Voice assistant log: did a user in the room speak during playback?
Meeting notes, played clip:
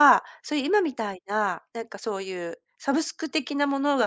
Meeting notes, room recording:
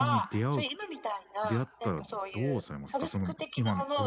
Yes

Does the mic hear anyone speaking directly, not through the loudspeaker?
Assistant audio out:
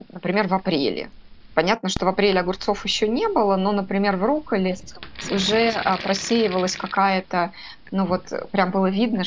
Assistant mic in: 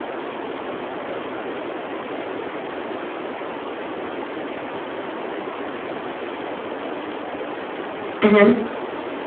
Yes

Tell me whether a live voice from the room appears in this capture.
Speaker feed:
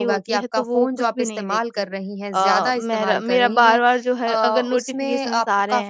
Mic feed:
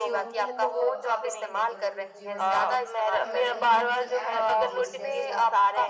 Yes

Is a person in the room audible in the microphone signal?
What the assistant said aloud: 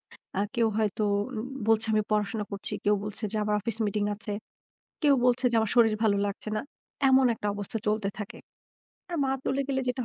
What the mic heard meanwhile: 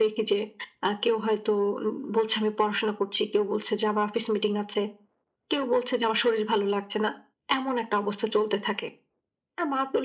No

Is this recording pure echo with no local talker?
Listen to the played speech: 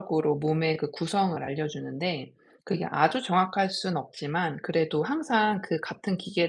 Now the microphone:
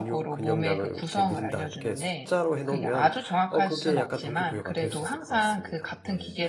No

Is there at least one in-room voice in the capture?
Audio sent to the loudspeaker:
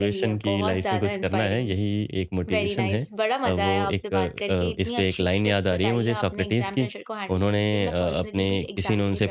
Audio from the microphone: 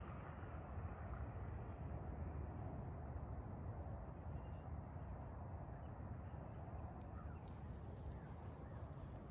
No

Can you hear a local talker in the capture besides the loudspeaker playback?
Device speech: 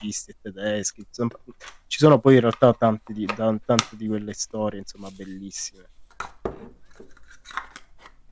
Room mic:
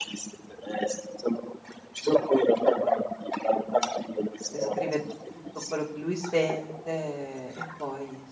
Yes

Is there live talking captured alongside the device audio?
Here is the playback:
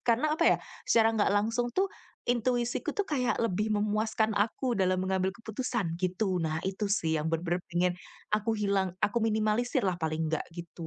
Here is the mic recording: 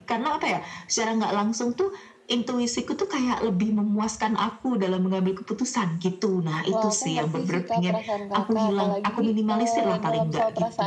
Yes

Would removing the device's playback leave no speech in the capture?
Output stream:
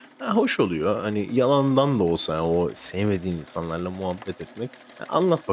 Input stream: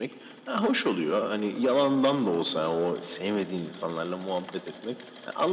Yes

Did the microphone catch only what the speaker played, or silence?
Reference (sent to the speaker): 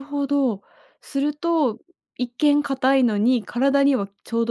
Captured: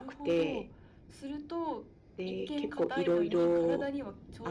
No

